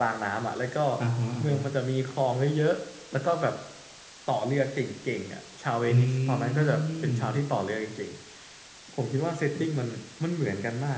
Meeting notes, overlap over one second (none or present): present